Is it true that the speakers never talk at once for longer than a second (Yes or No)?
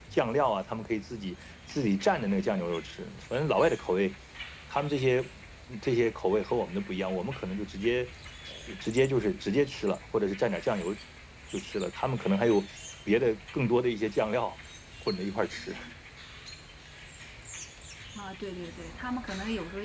Yes